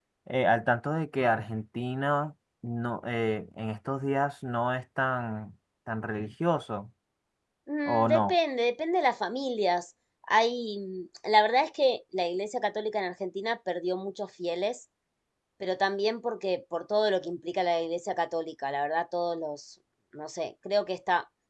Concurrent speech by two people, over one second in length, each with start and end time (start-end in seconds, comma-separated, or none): none